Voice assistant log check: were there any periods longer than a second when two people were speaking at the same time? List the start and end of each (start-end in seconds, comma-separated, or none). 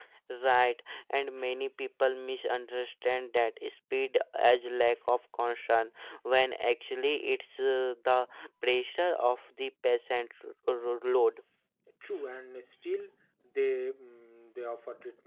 none